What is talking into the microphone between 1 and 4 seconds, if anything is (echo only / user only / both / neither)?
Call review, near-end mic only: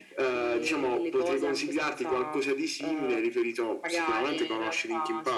echo only